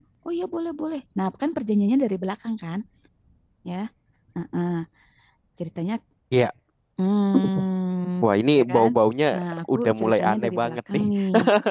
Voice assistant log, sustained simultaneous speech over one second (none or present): present